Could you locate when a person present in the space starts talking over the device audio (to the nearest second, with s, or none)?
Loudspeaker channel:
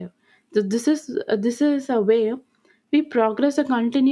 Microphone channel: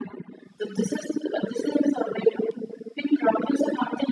none